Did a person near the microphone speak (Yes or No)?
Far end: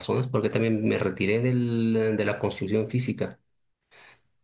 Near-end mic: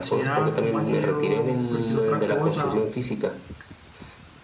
Yes